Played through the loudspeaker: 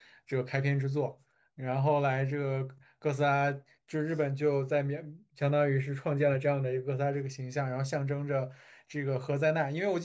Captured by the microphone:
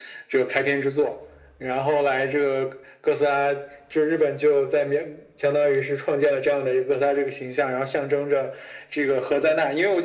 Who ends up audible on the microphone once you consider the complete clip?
echo only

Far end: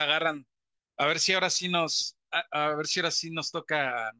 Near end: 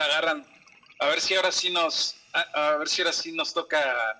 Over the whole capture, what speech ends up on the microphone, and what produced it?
echo only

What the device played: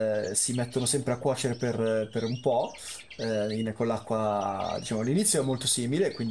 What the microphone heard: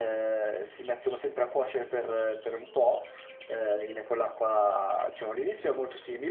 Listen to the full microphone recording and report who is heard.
echo only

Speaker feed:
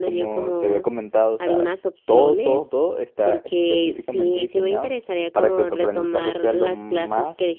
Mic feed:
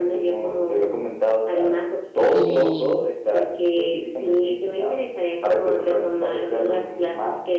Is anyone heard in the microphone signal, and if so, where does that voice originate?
both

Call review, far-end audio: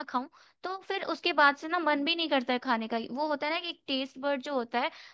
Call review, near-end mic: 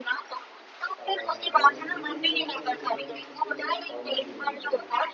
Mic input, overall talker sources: both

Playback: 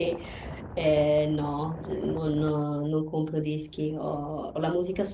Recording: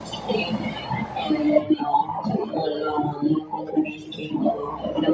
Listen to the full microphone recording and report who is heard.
echo only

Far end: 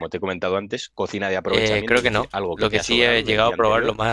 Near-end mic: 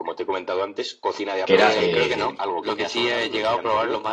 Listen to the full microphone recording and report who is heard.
both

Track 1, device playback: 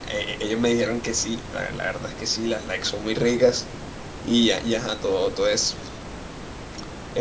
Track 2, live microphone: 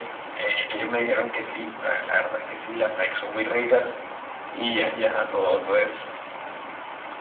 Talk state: echo only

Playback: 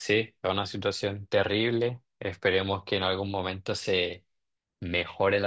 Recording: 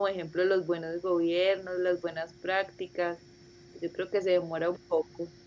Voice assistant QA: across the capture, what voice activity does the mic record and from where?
user only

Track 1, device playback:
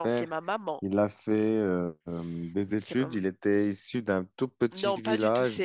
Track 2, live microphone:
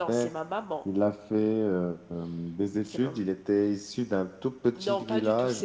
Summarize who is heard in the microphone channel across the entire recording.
echo only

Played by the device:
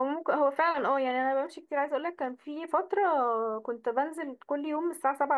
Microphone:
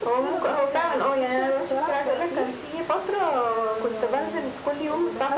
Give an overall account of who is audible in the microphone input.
both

